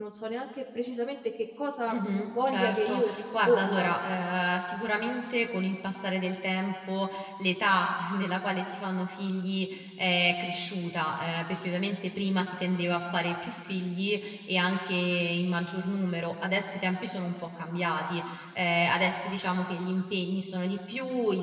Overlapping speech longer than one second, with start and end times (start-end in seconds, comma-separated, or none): 1.9-3.9